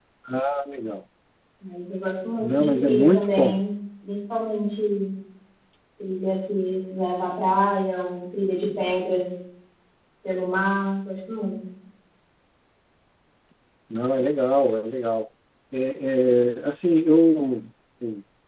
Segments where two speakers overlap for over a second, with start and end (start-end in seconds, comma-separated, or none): 2.4-3.6